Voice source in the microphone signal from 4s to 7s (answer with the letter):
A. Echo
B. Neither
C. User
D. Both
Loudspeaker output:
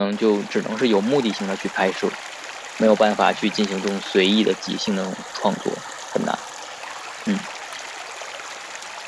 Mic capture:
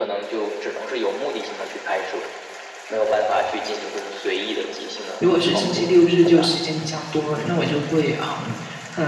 D